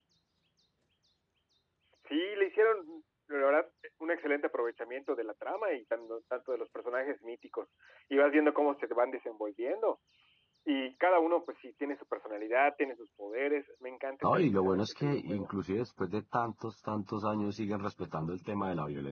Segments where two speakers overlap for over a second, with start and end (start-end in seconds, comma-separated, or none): 14.2-15.5